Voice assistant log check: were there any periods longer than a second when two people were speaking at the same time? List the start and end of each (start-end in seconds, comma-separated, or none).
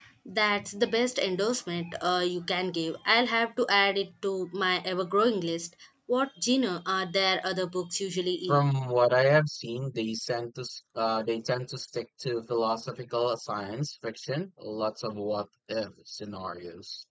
none